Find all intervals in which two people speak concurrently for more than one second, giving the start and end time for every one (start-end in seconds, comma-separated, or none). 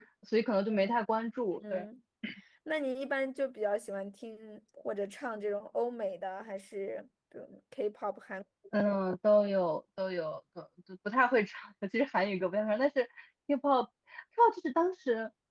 none